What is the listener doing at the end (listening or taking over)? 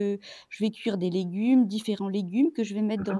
listening